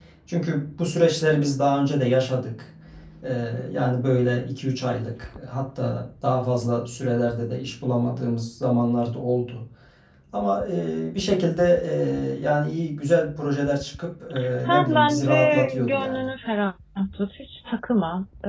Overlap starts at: 14.4 s

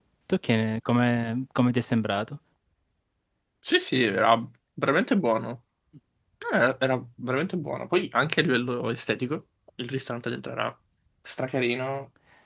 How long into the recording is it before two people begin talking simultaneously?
none

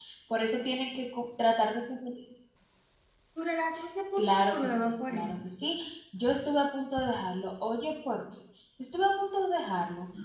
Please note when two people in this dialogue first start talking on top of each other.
4.2 s

